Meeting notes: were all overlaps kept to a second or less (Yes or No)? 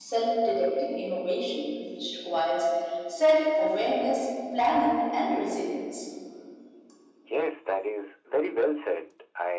Yes